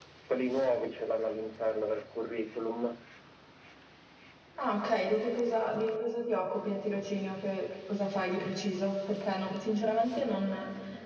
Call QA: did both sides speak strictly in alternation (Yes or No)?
Yes